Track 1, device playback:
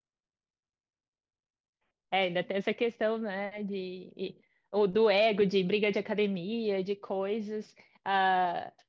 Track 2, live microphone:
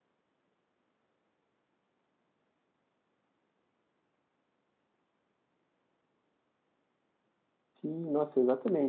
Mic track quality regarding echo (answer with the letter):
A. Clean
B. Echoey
A